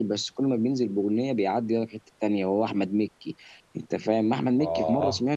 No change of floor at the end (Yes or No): Yes